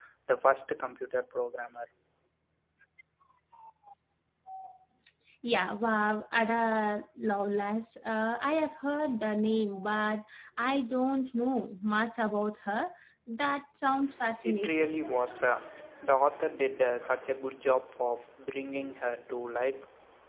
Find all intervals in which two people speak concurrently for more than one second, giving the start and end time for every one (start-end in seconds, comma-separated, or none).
none